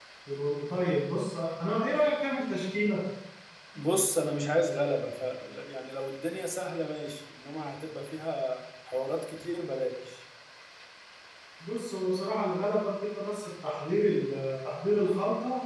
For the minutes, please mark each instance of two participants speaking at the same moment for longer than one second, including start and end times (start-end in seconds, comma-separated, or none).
none